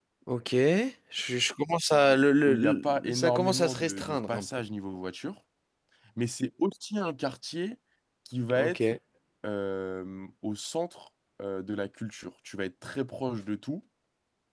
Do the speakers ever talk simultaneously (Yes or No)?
Yes